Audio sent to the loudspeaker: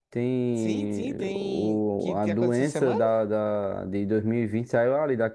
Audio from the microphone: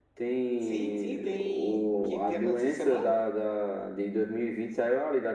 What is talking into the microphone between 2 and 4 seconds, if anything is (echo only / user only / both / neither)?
echo only